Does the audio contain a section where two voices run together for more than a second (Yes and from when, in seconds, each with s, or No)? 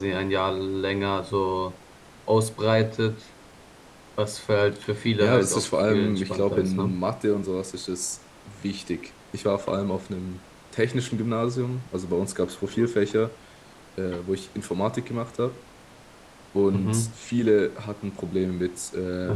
Yes, from 5.2 s